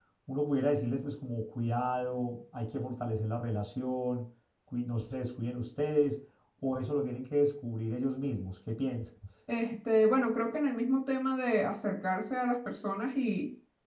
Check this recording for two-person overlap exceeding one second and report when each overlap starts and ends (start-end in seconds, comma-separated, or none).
none